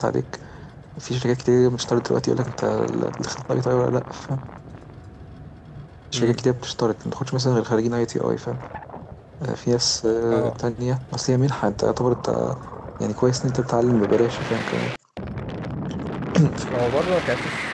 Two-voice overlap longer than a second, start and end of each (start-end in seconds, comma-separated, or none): none